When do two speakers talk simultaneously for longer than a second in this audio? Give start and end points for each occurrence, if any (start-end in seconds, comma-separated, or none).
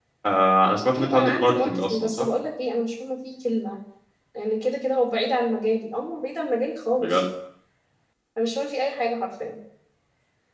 1.0-2.3